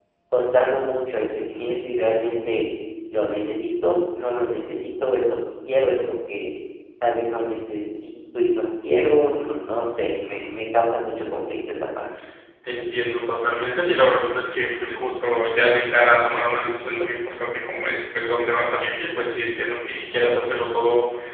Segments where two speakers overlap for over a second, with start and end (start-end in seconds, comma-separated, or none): none